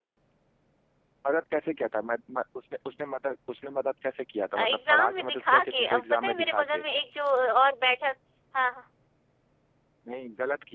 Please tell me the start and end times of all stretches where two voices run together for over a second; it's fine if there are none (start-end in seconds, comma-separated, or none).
4.6-6.8